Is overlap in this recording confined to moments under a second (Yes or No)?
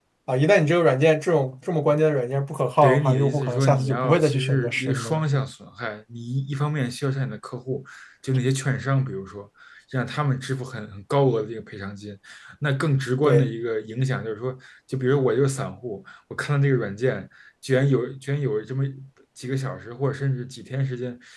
No